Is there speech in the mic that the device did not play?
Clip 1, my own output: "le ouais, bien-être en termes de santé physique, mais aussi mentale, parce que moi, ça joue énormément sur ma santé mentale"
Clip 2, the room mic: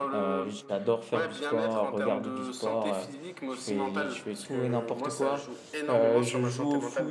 Yes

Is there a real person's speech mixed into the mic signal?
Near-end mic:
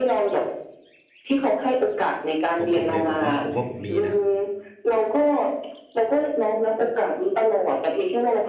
Yes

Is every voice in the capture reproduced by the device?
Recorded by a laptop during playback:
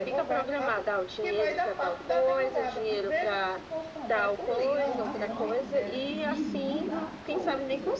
No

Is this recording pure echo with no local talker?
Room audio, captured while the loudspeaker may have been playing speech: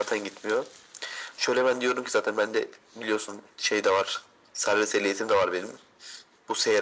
Yes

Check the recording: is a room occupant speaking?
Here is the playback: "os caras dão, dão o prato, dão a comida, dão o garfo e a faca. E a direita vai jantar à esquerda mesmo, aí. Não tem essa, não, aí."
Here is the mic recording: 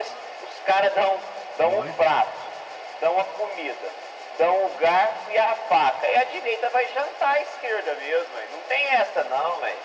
Yes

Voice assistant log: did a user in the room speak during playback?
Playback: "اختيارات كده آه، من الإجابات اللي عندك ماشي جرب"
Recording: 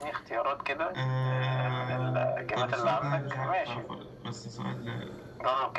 Yes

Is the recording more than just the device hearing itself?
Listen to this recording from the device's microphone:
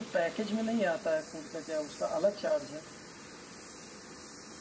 Yes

